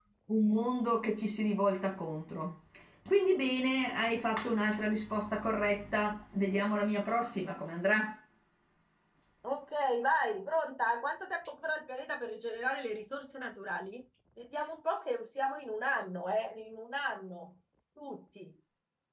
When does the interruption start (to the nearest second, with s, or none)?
none